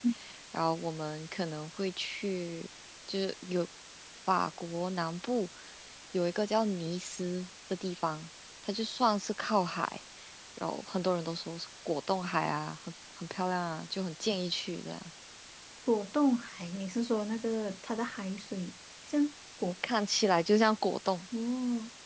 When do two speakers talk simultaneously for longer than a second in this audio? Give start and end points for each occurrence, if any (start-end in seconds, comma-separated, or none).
none